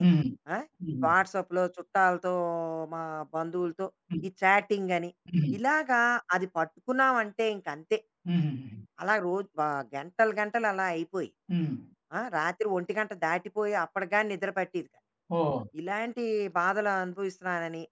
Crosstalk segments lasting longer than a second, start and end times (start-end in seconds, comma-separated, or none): none